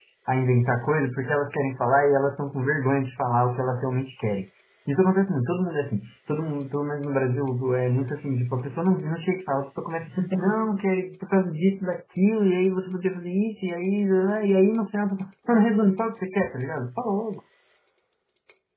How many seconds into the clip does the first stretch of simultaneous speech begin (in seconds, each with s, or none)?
none